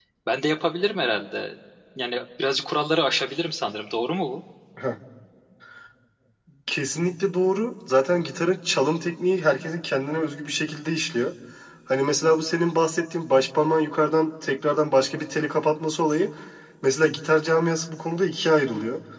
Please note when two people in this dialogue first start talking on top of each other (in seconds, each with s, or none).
none